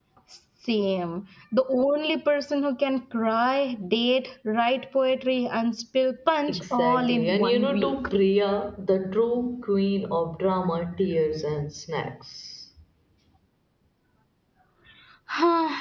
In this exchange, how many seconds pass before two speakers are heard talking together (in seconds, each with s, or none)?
6.5 s